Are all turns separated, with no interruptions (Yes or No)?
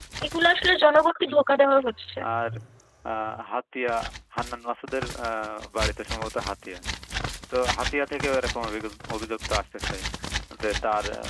Yes